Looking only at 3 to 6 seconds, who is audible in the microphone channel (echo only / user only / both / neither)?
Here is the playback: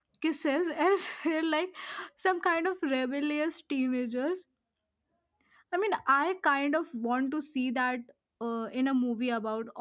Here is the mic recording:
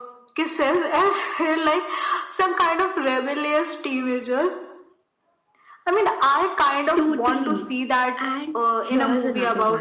echo only